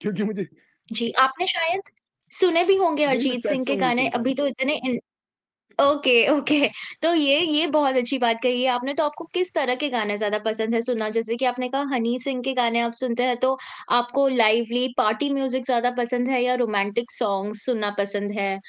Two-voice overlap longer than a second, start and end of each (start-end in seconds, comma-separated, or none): 3.1-4.3